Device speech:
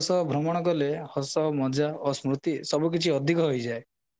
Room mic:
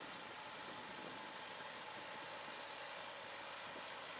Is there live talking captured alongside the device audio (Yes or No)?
No